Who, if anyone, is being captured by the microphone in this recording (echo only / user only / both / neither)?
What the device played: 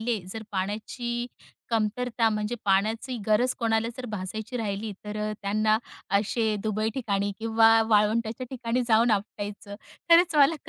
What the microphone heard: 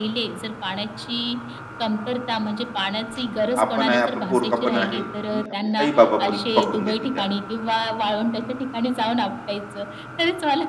both